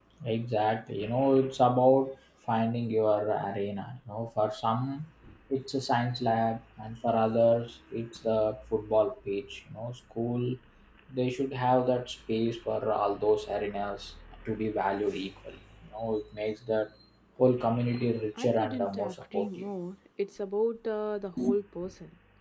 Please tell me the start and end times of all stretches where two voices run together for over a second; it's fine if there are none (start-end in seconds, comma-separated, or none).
18.4-19.7